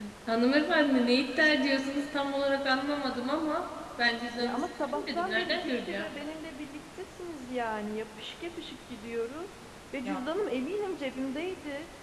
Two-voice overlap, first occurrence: 4.4 s

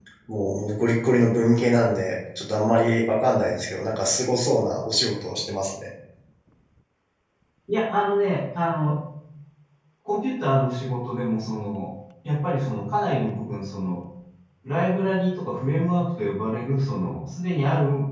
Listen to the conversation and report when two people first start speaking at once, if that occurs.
none

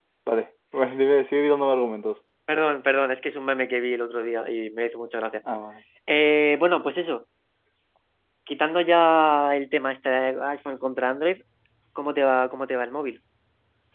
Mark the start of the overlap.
none

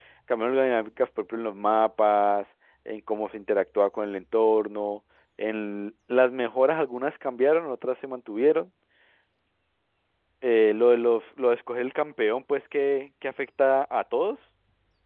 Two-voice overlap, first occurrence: none

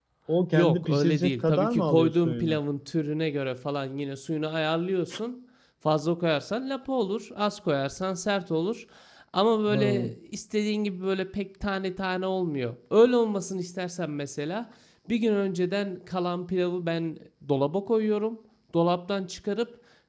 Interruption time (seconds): 0.5 s

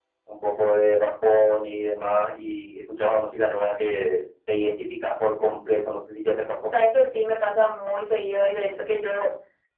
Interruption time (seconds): none

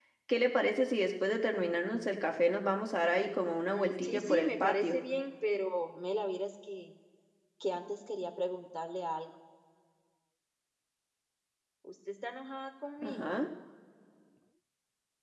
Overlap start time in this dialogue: 3.7 s

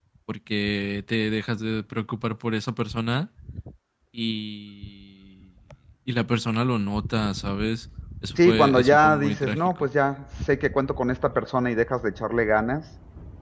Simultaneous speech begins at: 8.4 s

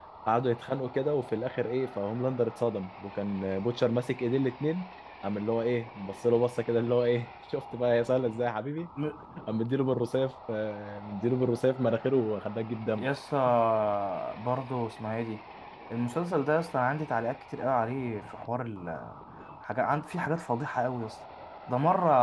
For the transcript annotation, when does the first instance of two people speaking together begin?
none

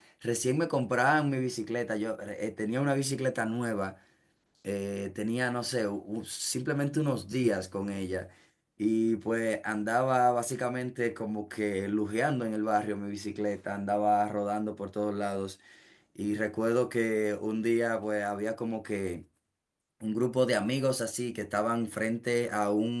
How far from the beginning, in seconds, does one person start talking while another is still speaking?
none

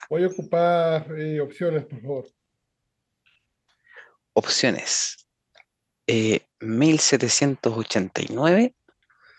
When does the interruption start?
none

